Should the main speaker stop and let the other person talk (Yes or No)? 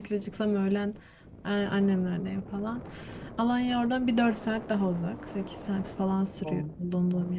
No